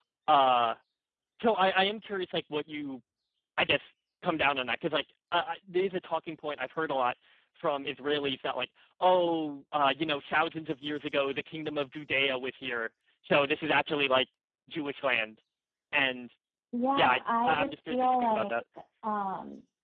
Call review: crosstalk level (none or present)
present